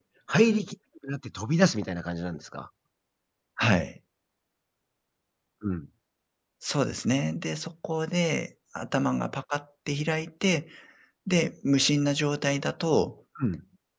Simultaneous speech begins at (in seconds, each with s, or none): none